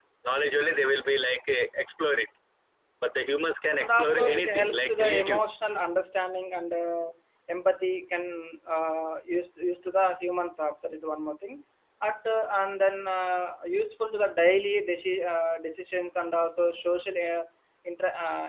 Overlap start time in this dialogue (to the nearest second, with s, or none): 4 s